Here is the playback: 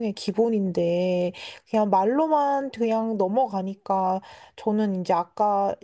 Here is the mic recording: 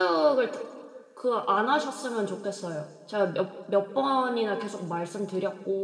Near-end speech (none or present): present